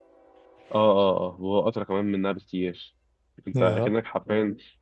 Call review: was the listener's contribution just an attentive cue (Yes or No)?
Yes